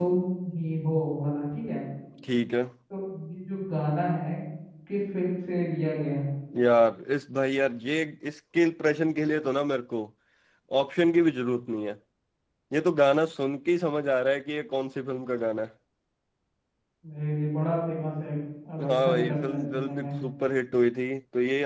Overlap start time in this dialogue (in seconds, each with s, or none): 18.8 s